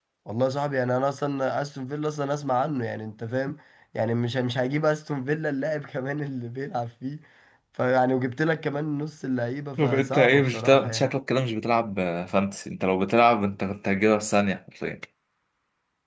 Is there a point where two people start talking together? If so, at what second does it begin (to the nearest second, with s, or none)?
10 s